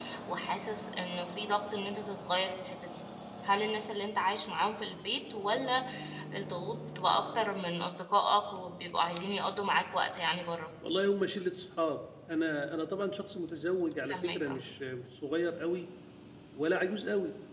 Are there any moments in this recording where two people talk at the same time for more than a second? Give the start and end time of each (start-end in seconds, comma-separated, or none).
none